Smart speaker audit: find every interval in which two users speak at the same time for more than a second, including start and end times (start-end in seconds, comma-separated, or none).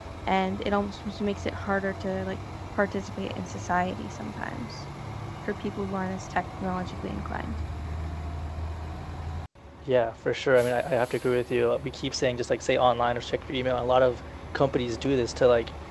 none